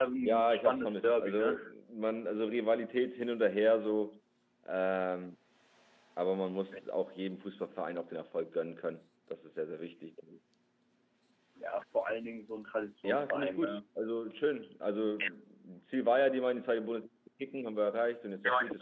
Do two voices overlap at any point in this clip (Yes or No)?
Yes